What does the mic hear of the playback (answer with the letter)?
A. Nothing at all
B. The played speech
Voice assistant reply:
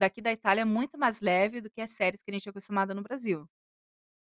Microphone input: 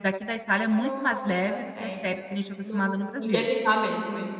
B